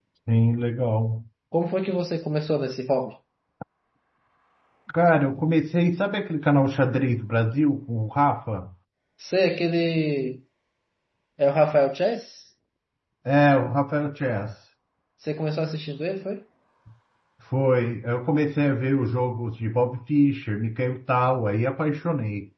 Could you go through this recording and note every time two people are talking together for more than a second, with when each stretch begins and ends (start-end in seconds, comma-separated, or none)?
none